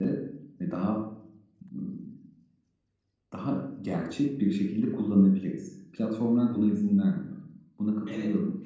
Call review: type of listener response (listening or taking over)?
taking over